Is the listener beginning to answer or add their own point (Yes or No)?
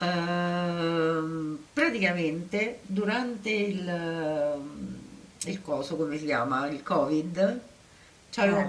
No